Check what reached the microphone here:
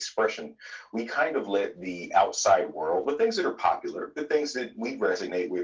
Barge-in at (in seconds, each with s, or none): none